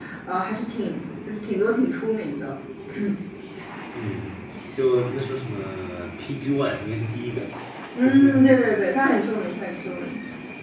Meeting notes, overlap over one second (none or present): none